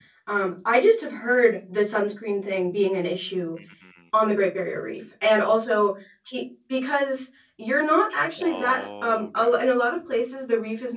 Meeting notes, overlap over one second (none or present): present